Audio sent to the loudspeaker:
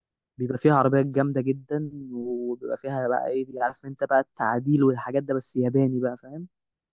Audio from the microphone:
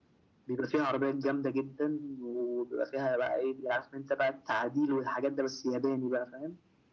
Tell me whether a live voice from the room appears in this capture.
No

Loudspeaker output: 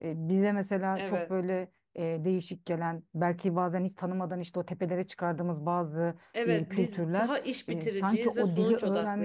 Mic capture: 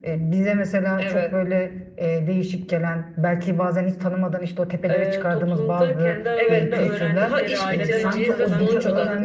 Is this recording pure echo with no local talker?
No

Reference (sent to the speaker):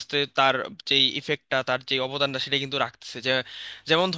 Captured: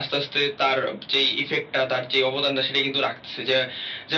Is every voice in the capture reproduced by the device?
Yes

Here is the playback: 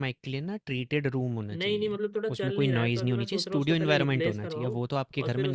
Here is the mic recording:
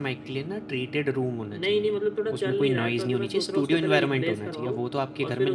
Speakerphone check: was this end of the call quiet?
Yes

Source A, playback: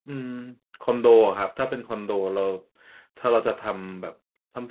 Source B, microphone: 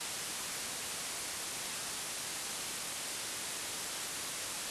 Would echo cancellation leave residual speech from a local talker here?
No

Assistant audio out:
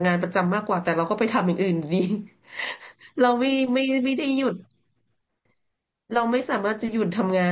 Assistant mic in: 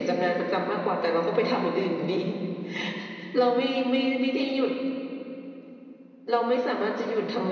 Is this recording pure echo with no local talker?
Yes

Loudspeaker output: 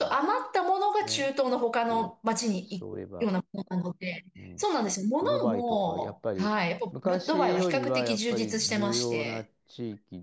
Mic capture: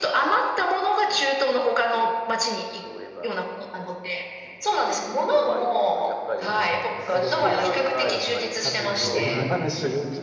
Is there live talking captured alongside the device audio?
Yes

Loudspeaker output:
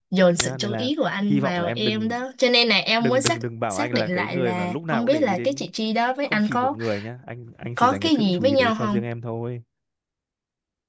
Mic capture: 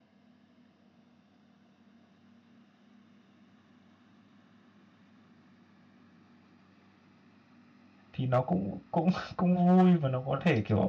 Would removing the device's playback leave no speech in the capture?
No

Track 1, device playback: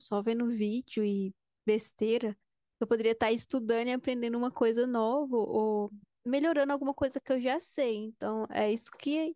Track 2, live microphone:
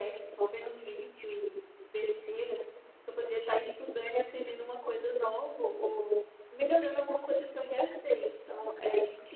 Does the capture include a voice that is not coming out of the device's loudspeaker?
No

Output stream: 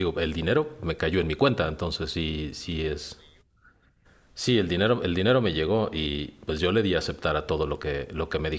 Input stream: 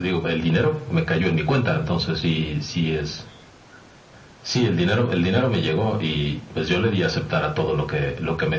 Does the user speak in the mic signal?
No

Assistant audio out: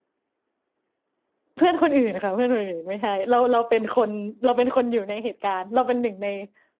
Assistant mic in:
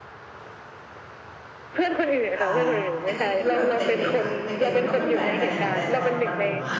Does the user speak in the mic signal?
Yes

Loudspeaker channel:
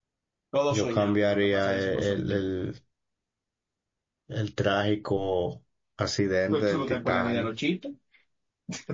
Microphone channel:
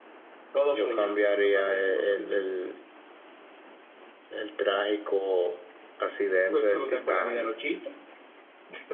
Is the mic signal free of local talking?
Yes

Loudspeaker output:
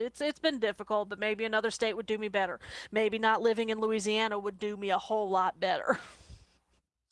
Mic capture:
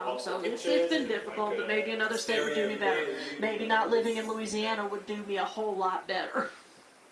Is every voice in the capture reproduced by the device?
No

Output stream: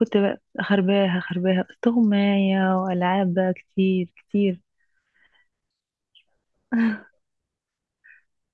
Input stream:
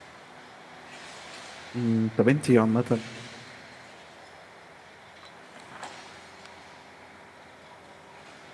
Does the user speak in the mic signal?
Yes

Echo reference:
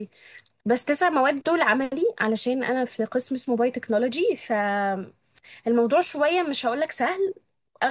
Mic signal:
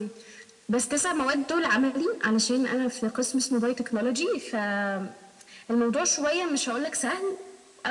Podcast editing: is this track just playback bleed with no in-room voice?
Yes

